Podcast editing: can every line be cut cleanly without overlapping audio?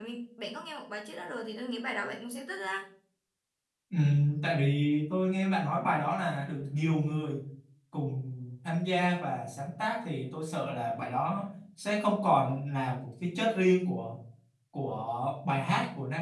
Yes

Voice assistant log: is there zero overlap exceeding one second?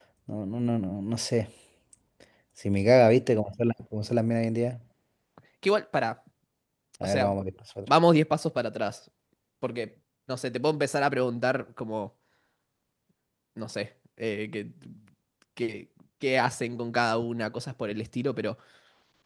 Yes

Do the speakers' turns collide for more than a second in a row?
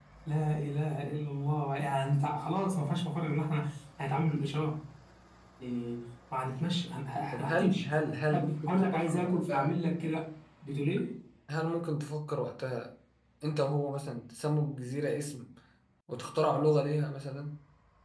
Yes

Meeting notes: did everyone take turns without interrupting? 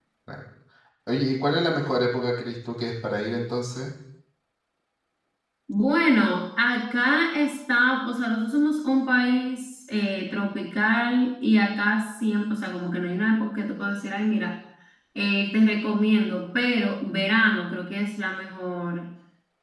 Yes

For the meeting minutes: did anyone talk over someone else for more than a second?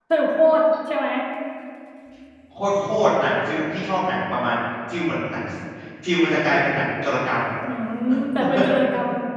No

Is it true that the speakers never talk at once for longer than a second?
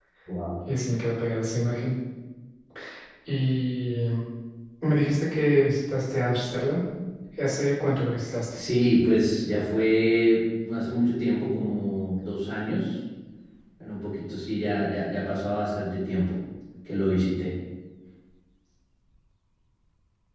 Yes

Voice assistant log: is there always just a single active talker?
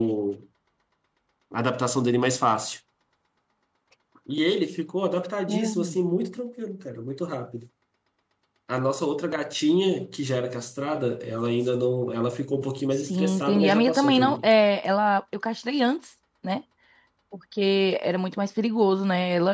No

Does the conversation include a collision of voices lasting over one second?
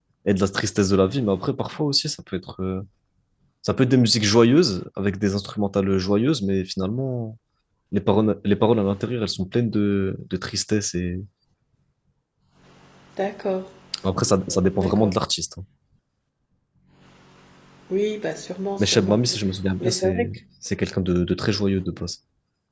No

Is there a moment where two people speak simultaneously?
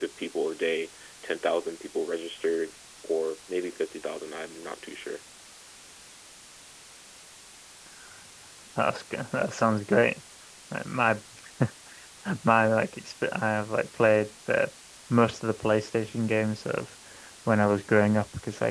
No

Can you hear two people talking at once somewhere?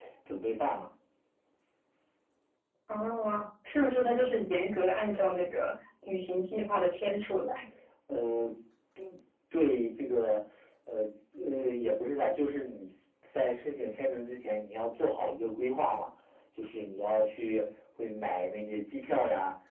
No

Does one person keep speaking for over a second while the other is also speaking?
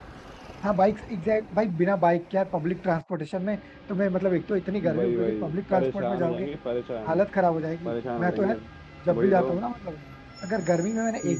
Yes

